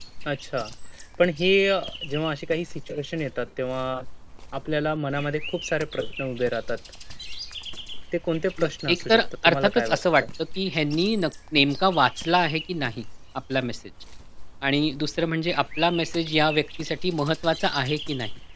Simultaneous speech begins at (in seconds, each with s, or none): 8.6 s